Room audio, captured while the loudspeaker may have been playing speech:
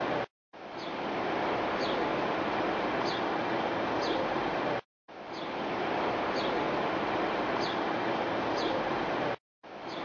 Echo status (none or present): none